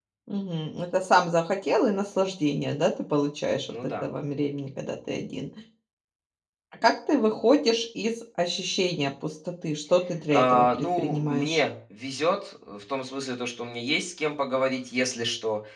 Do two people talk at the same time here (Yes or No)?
Yes